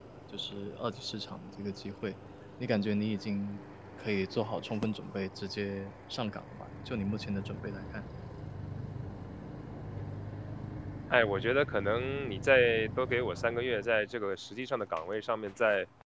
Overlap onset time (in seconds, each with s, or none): none